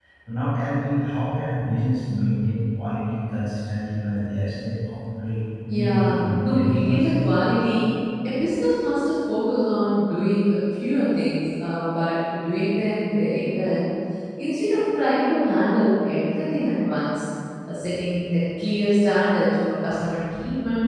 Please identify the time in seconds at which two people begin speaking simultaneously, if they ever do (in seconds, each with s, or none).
5.7 s